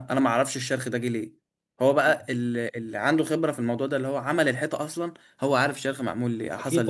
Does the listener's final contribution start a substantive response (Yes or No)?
Yes